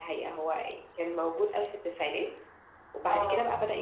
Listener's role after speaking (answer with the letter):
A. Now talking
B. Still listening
B